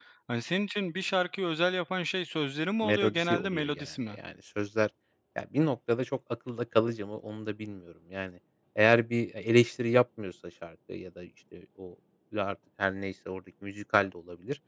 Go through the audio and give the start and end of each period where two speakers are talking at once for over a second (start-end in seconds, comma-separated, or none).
2.8-4.2